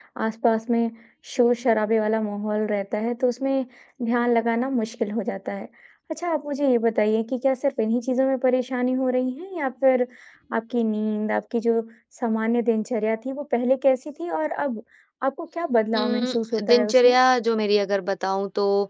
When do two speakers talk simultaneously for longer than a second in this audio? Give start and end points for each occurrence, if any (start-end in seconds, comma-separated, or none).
15.9-17.2